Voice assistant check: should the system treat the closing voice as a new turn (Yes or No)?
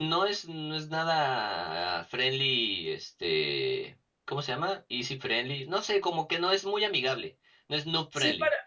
Yes